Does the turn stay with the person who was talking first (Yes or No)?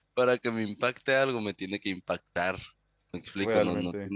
Yes